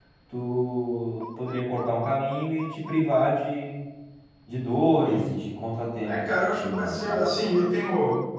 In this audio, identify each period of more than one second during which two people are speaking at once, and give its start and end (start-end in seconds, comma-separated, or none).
6.0-7.2